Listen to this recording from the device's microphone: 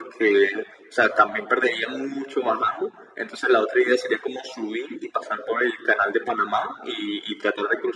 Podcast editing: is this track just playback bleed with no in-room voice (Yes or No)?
Yes